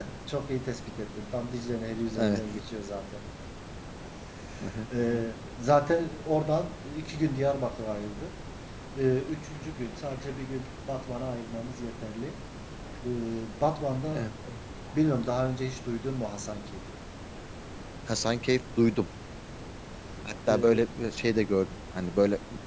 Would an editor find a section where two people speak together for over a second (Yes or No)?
No